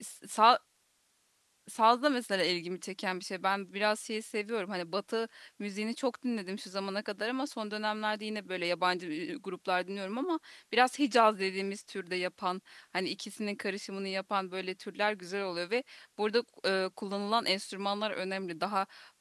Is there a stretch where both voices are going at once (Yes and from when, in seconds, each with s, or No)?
No